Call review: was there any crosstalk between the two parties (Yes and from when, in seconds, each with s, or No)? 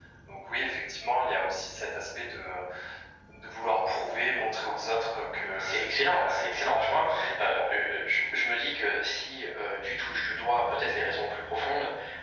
Yes, from 5.6 s